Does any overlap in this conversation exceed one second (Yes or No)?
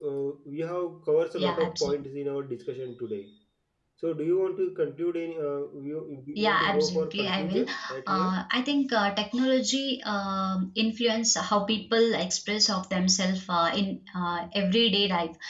Yes